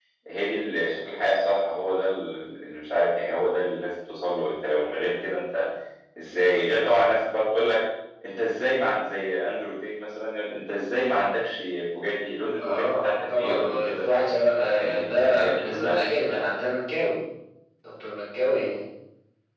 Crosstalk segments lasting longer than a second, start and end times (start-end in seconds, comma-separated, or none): 12.6-14.0, 14.7-16.0